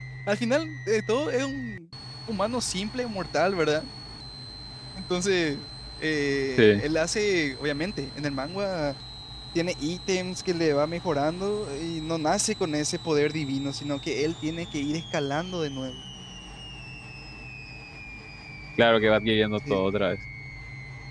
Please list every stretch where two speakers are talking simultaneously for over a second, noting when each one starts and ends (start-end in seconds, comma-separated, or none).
none